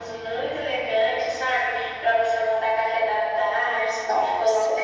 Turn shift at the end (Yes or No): No